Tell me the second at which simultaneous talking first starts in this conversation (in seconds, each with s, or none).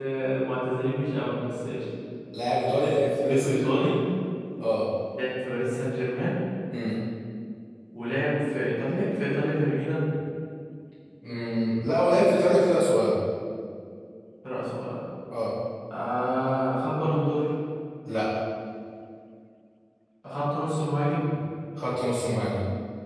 2.8 s